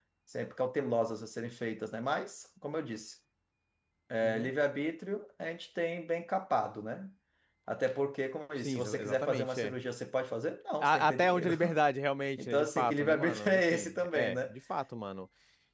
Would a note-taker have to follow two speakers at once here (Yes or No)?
Yes